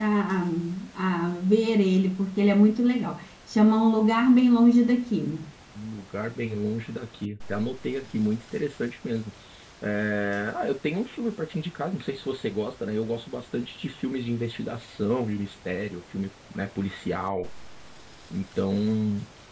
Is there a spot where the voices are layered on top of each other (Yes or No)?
No